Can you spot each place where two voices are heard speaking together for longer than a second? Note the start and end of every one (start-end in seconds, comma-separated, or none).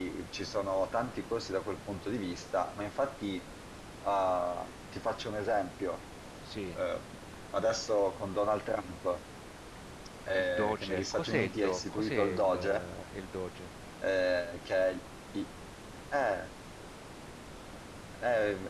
10.4-12.8